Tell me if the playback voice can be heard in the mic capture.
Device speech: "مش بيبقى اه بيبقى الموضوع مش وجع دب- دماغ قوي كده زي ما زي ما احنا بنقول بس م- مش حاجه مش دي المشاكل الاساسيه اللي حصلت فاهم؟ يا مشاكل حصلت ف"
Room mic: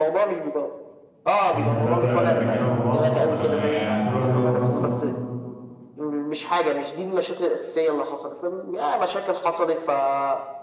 Yes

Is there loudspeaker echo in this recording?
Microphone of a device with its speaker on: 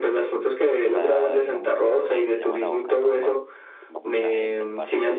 Yes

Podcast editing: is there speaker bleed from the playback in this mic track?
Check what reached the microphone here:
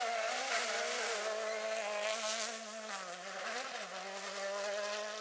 No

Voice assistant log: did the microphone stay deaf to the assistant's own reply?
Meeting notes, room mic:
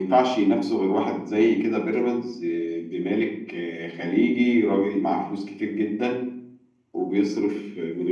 No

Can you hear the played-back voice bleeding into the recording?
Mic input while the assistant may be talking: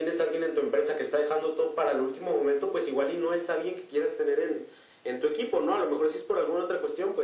Yes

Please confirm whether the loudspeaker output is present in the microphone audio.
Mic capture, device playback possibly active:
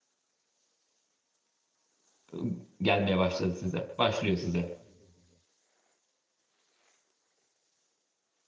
No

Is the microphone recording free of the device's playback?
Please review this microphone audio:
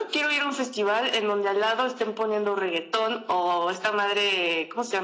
No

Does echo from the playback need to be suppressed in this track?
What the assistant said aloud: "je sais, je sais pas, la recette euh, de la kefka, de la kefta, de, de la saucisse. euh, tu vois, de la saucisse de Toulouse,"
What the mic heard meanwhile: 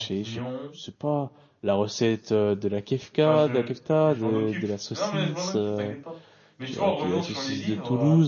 Yes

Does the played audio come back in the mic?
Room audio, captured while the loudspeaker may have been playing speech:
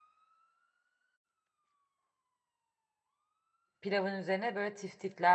No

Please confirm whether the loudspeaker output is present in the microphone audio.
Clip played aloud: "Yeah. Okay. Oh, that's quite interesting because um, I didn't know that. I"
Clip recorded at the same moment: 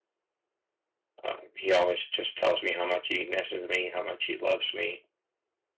No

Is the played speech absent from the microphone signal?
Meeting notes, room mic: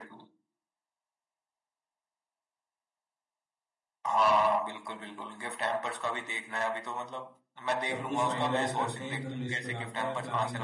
No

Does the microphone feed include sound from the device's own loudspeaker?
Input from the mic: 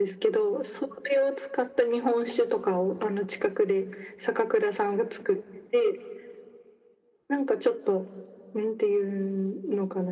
Yes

